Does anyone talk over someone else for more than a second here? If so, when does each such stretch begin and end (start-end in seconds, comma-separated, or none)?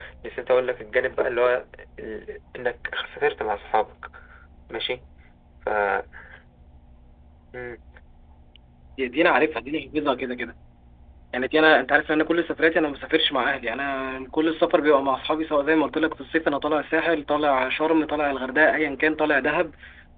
none